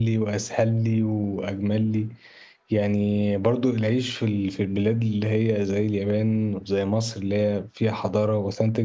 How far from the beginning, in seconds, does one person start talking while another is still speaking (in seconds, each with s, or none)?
none